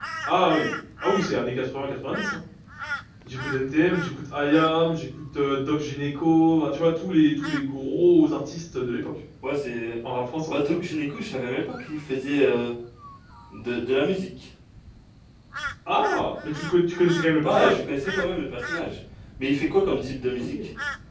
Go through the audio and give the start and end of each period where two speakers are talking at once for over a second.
none

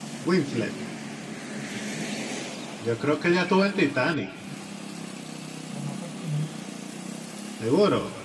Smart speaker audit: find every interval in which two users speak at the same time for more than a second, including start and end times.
none

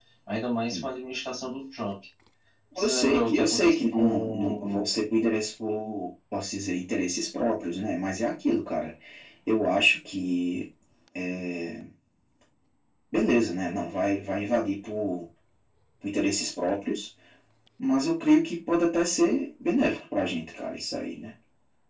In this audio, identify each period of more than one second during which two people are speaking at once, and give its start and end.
2.8-4.9

